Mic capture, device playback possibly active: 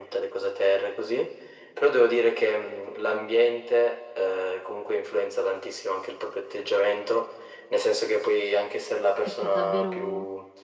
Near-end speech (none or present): present